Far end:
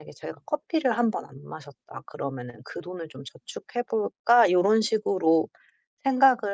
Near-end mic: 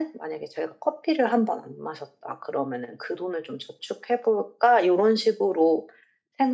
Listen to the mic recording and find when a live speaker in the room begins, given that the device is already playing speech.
none

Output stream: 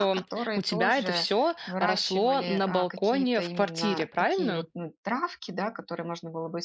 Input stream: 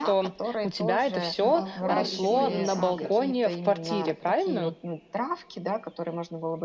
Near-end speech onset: 1.4 s

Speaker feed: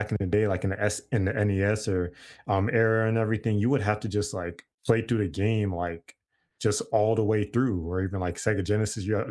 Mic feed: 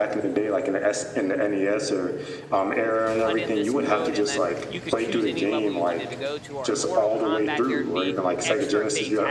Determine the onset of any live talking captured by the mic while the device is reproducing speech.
3.2 s

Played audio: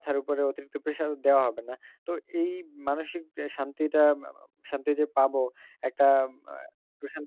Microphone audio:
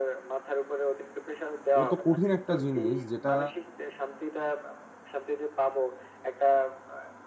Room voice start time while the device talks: 1.8 s

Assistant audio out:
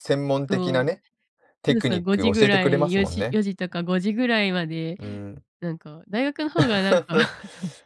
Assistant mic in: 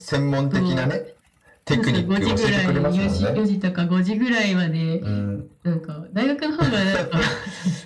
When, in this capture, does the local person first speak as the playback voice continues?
none

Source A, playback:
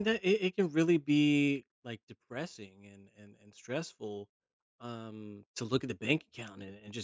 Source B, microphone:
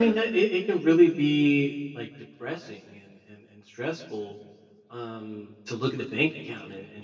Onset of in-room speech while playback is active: none

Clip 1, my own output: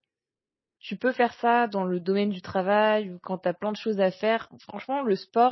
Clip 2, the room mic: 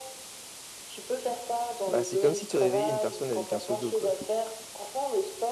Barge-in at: 1.9 s

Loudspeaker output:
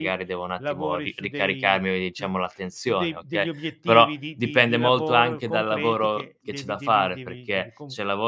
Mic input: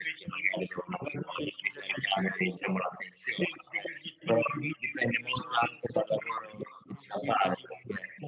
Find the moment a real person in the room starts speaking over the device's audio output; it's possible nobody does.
none

